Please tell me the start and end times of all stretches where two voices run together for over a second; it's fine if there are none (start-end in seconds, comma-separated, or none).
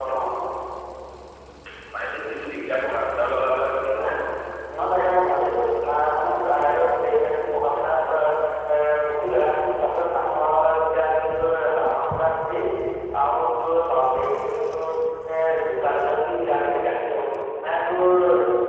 none